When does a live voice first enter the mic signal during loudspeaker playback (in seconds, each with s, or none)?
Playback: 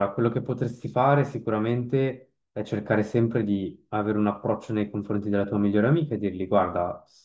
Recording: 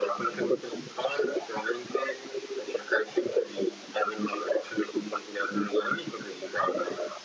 none